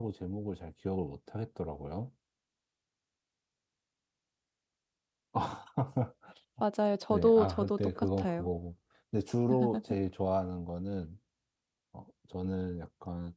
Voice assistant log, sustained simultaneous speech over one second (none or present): present